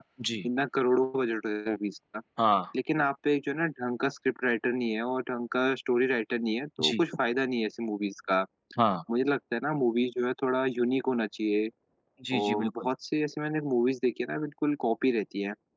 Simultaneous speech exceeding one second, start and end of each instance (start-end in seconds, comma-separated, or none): none